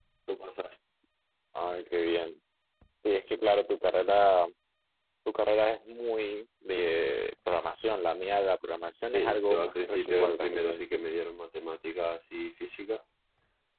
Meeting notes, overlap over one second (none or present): present